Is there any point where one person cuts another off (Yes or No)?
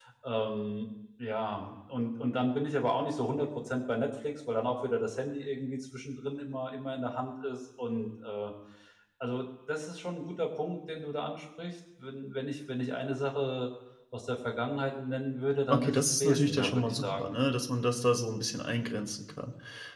Yes